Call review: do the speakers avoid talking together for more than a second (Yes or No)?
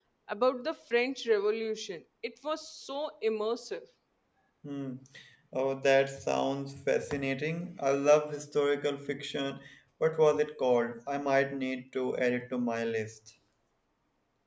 Yes